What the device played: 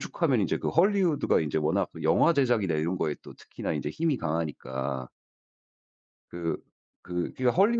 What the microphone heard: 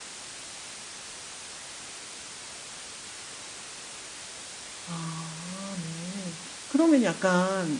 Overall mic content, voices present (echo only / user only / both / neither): user only